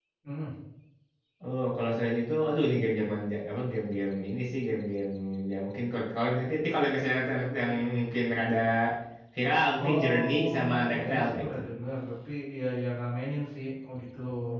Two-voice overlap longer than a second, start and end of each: 9.8-11.6

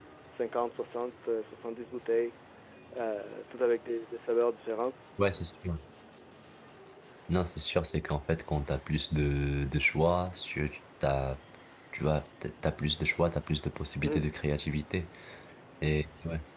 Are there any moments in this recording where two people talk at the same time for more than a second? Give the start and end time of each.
none

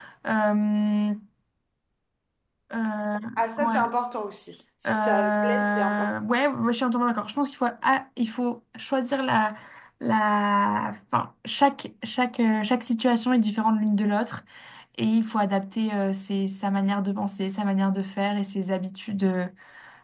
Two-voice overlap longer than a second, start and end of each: 4.9-6.1

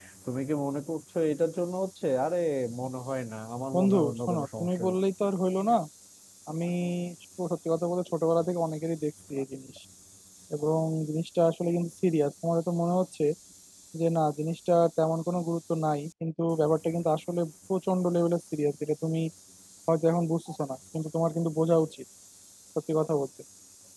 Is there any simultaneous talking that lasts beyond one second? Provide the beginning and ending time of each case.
3.7-5.0

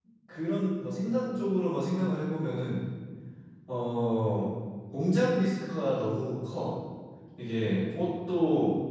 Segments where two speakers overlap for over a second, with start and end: none

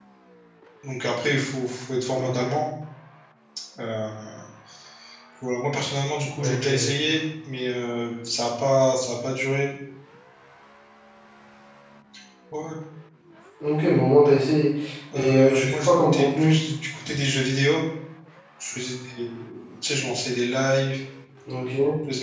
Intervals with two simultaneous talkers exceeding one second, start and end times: 15.1-16.6

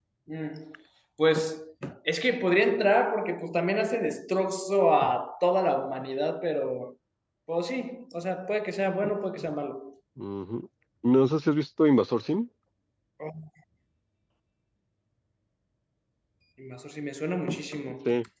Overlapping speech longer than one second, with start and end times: none

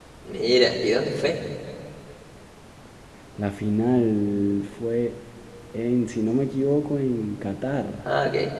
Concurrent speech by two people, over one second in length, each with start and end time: none

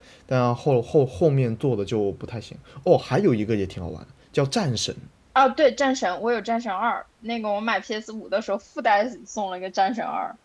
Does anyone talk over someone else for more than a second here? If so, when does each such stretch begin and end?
none

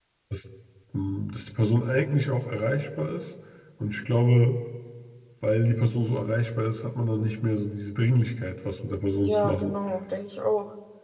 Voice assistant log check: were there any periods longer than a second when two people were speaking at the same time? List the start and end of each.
none

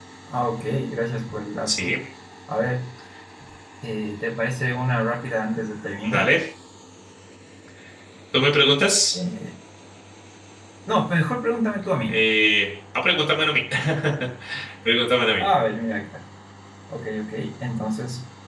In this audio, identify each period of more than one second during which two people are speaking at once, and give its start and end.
none

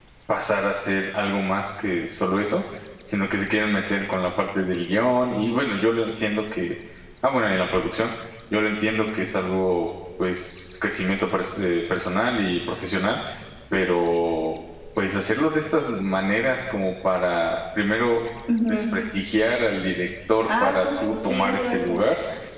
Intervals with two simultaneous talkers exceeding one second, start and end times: 20.5-21.9

